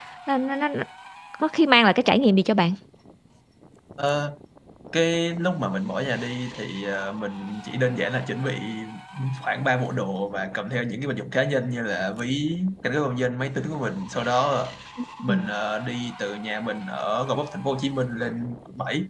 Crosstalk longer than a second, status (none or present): none